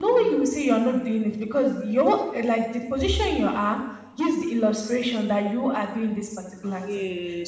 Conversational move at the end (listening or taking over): listening